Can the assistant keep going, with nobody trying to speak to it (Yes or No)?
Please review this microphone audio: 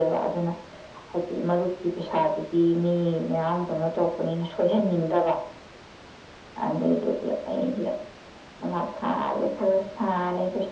Yes